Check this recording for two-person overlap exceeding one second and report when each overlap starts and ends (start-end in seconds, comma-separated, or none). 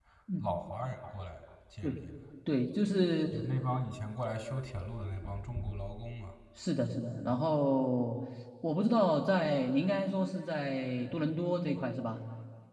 none